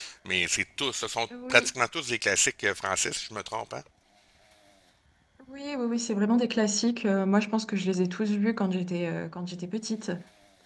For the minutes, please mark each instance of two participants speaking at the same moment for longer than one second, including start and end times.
none

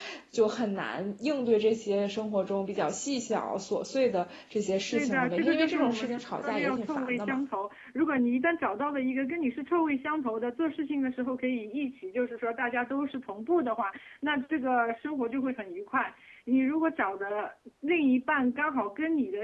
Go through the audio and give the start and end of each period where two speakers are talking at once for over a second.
4.9-7.4

